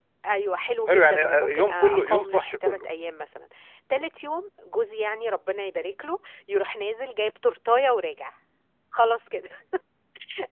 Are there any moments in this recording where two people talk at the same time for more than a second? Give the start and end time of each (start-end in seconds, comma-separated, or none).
0.9-2.8